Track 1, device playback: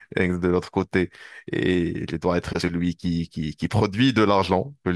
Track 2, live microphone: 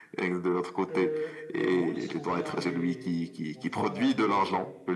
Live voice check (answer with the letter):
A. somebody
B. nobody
A